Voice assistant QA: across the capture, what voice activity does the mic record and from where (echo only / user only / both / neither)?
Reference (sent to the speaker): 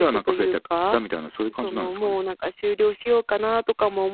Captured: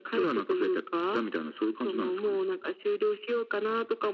echo only